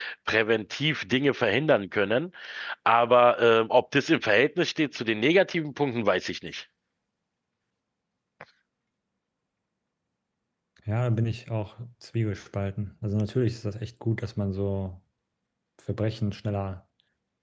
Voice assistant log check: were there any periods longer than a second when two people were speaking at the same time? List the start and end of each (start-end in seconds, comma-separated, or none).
none